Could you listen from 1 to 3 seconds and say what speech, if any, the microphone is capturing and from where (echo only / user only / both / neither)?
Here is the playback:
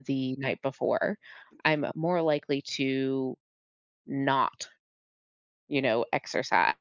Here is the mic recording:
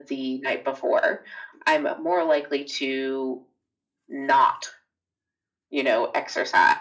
echo only